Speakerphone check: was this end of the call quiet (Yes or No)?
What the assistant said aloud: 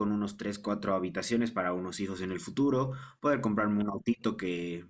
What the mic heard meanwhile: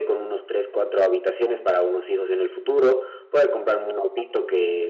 Yes